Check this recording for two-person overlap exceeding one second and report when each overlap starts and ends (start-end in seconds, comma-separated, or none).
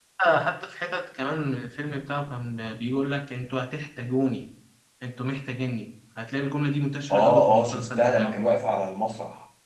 7.1-8.4